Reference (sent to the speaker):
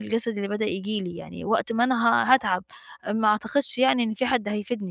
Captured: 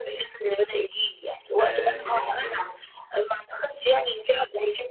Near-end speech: present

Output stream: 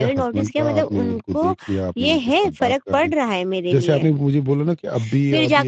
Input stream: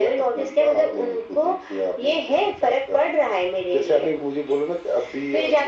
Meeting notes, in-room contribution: none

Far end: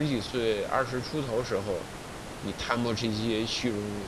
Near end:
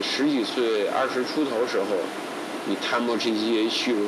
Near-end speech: none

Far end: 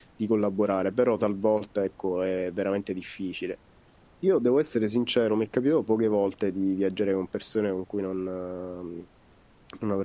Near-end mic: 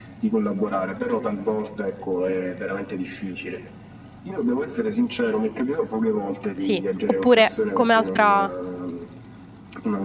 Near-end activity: present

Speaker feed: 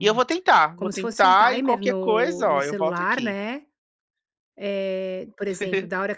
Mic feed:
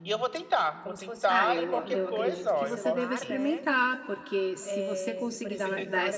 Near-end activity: present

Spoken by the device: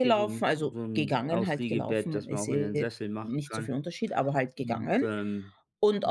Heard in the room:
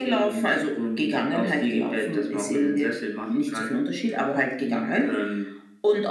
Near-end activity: none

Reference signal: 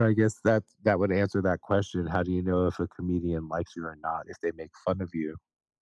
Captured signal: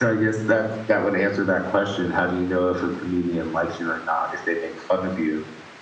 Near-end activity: none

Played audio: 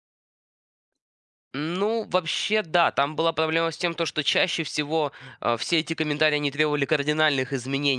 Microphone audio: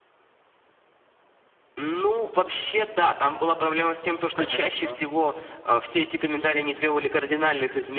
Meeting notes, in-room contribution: present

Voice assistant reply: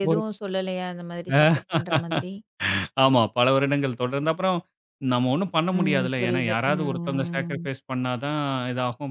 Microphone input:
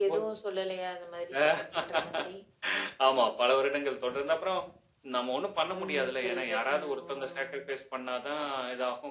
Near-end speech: none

